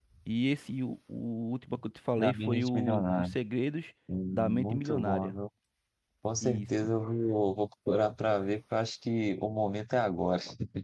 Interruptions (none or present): present